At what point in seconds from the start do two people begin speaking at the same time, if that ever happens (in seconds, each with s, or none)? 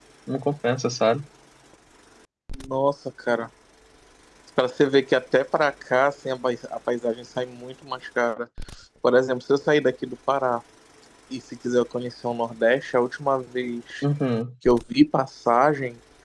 none